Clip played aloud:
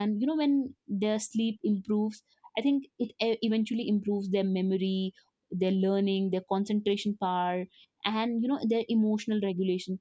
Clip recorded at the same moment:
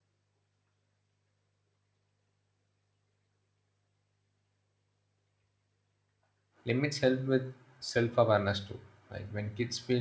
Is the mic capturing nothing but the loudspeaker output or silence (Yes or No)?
No